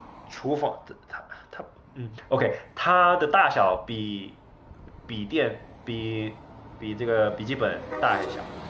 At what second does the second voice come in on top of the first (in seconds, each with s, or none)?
none